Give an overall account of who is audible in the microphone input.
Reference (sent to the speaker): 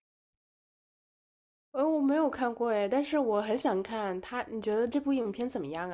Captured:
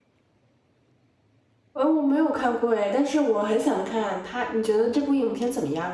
echo only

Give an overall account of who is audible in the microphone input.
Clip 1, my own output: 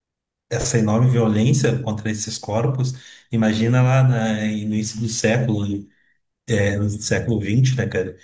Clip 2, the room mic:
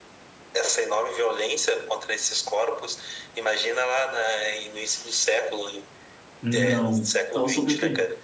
both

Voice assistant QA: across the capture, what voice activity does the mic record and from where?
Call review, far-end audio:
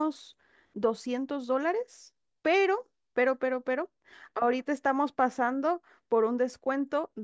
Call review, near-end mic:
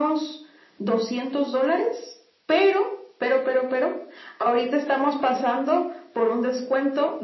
echo only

